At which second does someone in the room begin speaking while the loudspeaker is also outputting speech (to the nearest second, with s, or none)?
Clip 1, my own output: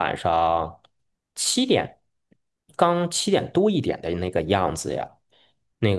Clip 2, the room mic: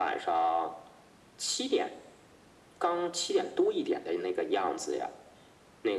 none